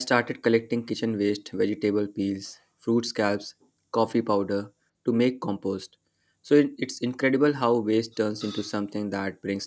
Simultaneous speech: No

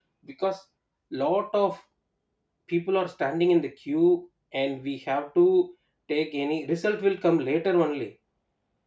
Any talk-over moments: No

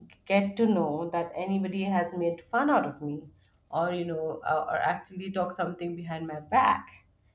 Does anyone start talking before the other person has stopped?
No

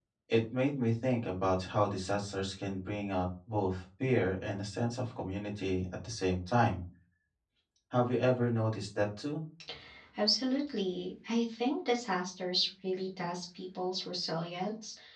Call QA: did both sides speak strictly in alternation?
Yes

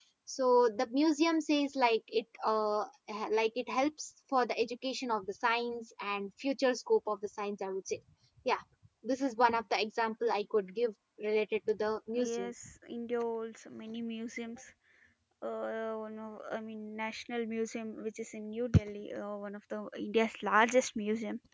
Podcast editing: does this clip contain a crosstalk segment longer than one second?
No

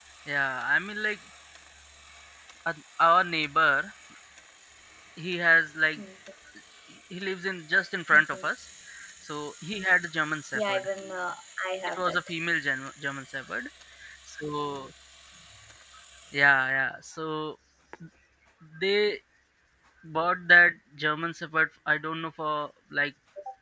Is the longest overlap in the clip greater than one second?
No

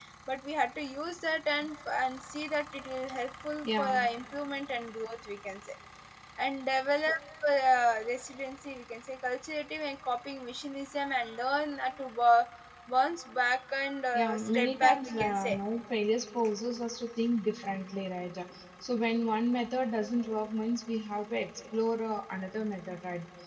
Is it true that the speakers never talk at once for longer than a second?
No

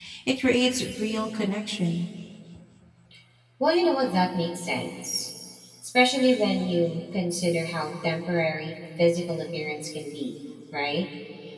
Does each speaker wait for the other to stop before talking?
Yes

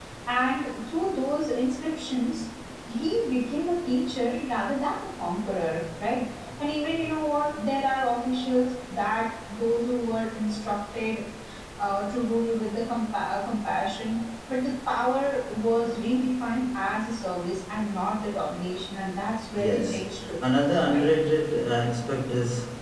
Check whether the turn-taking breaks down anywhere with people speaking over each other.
Yes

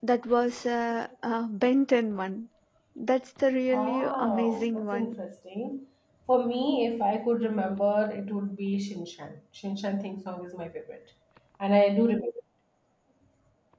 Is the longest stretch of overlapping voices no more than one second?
No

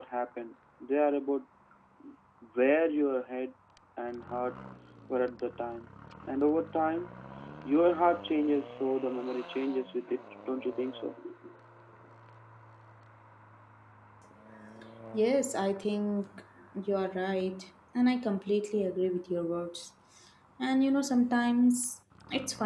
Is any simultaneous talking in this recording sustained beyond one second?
No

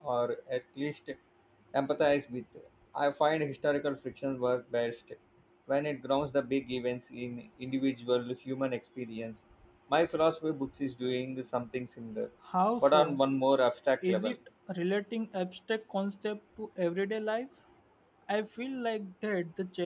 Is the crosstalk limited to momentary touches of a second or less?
Yes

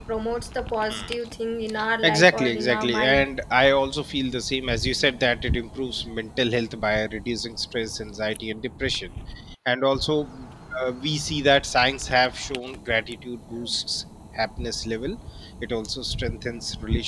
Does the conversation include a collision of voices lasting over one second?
Yes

